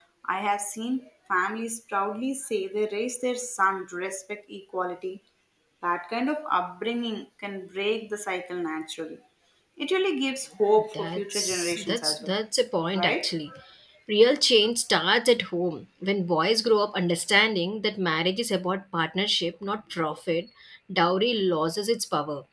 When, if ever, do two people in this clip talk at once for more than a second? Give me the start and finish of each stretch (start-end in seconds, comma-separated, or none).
10.9-12.3